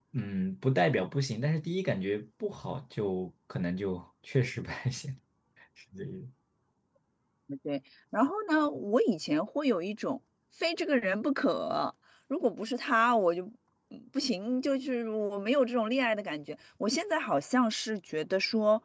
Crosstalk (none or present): none